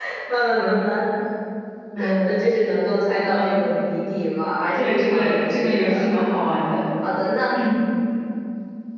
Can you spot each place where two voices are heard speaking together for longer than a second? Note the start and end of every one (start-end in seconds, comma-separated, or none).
4.8-6.1